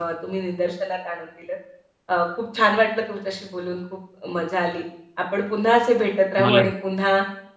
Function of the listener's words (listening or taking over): listening